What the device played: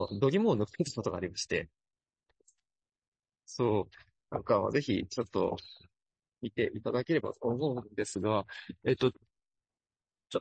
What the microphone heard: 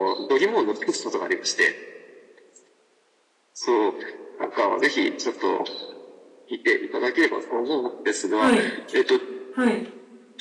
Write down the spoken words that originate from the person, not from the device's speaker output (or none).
はい、はい、